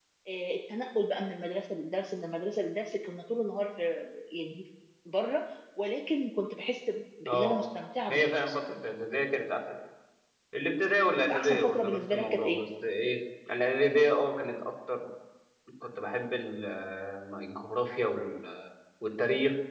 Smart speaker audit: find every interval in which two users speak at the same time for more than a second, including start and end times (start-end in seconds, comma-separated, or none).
11.2-12.6